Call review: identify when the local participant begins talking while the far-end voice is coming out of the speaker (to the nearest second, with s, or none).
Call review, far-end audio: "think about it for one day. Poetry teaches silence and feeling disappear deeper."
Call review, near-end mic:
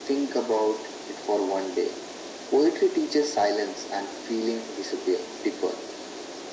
none